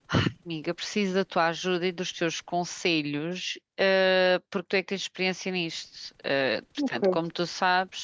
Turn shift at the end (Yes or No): No